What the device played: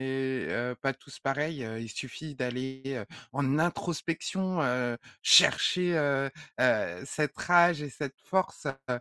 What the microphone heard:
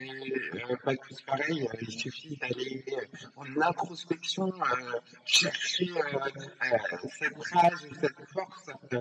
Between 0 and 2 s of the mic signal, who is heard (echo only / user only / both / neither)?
echo only